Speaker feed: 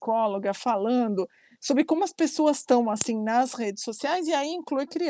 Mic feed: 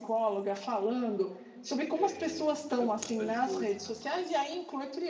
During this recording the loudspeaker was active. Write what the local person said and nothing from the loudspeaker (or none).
Eh, na velocidade 2, né?